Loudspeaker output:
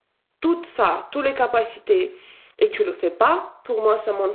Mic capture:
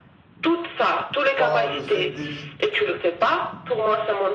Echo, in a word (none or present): present